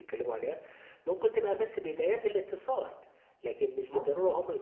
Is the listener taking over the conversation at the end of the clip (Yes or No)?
No